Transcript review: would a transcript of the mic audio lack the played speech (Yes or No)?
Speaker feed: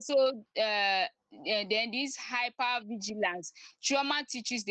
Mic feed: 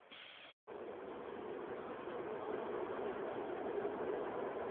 Yes